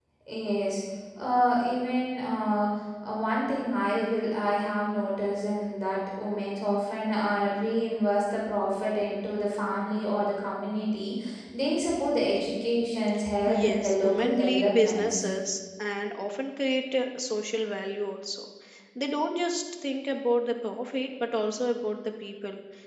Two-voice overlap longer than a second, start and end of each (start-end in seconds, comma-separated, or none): 13.5-15.3